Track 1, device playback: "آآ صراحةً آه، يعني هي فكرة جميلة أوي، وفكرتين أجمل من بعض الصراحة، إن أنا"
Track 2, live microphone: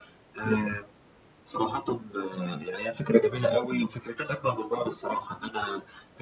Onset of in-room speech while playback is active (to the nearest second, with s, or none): none